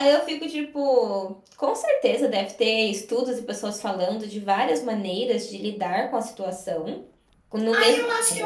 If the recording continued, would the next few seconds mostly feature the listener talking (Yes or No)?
Yes